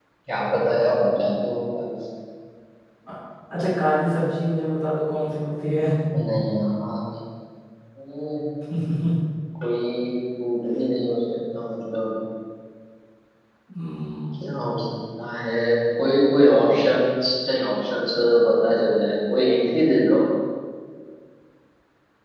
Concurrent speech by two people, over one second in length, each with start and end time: none

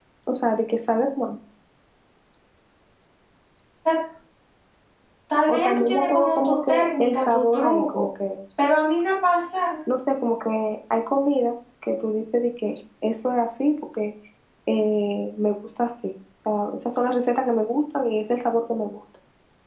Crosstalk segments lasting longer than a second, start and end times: 5.5-8.0

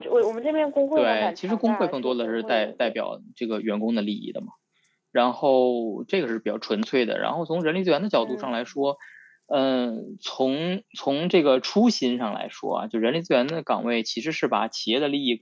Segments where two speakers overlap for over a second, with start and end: 1.0-2.9

